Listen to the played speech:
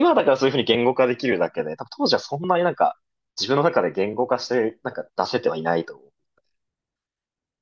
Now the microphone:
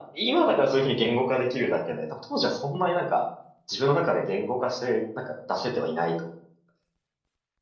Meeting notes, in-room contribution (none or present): none